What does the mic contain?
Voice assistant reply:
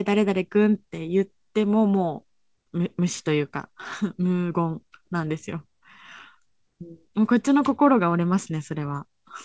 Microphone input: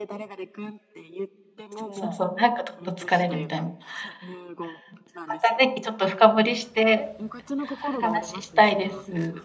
both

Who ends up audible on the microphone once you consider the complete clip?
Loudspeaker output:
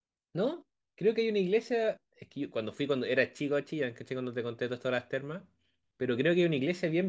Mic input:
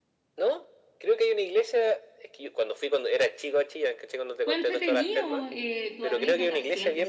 both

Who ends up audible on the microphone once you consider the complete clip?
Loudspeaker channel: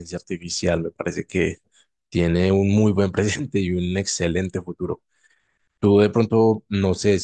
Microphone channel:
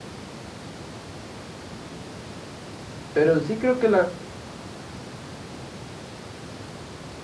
user only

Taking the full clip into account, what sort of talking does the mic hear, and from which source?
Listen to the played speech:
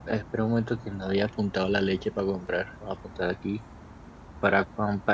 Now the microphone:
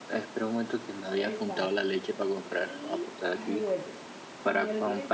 both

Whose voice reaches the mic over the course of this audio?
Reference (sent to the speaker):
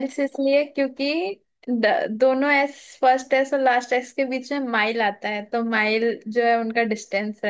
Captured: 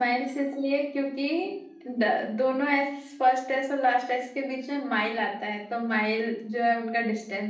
echo only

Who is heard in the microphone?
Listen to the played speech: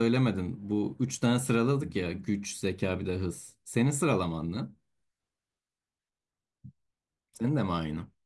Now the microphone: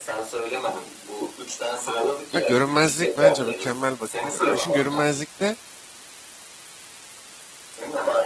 both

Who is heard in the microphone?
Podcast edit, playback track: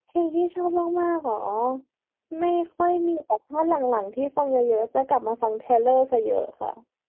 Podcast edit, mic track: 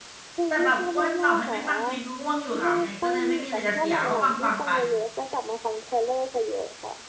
both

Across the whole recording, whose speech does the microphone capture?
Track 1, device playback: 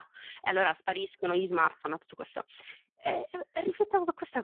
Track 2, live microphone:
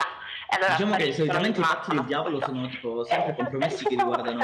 both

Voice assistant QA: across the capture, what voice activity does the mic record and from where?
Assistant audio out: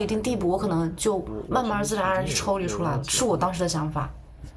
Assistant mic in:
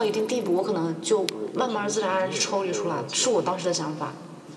echo only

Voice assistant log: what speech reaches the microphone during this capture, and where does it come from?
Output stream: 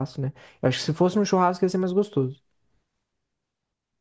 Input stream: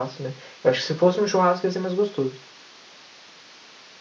echo only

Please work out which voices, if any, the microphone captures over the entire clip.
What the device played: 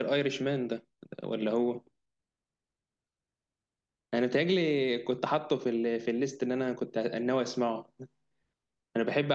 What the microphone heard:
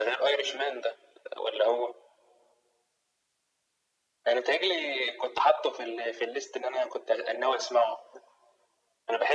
echo only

